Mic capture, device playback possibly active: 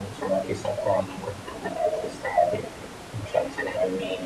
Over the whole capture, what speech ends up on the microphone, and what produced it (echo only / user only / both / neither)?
echo only